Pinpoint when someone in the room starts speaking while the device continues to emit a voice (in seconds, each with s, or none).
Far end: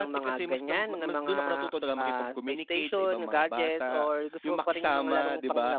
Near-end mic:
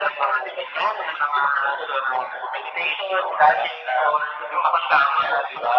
none